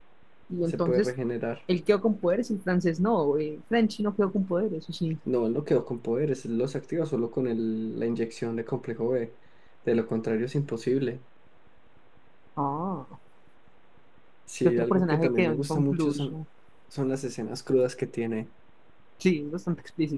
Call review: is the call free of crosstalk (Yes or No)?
No